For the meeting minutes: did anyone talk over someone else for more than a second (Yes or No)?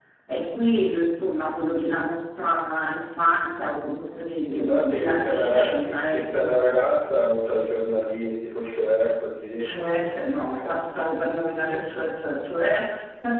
Yes